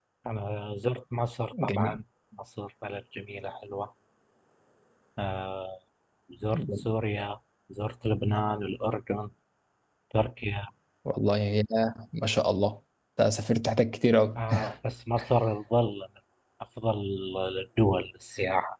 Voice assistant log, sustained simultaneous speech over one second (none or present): none